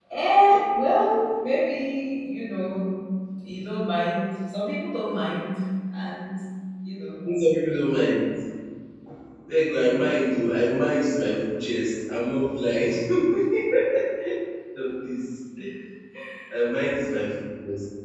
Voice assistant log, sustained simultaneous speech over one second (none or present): none